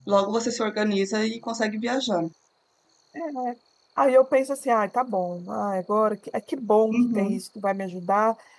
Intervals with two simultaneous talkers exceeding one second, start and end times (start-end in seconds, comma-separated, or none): none